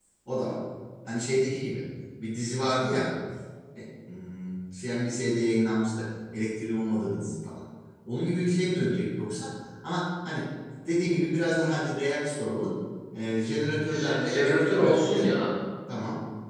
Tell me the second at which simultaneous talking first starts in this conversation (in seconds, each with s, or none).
13.9 s